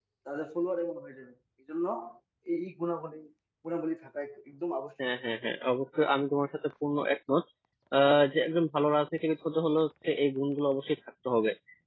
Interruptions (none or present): none